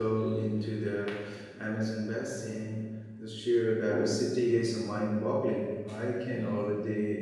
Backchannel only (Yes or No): Yes